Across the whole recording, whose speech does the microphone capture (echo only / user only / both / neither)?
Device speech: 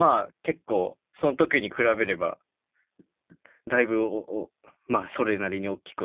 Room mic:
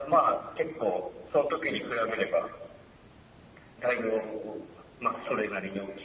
echo only